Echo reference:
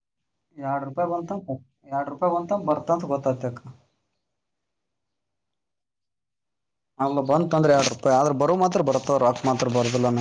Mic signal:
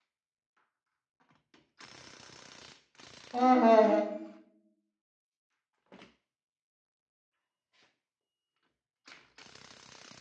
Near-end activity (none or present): present